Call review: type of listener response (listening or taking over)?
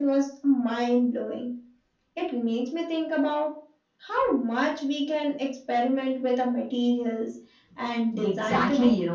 taking over